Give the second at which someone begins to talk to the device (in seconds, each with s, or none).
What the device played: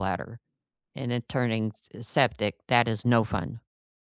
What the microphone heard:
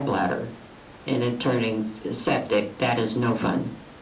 none